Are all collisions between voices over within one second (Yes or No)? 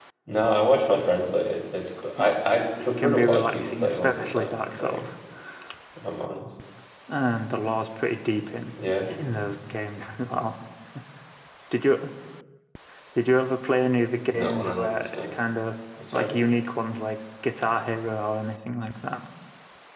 No